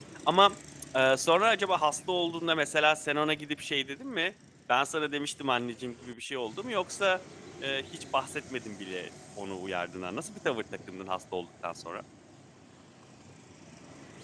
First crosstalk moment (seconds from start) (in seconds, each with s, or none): none